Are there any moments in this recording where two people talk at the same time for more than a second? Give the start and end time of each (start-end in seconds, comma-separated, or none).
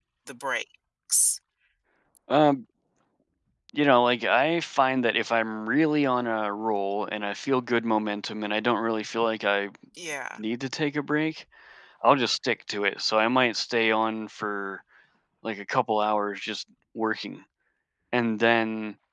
none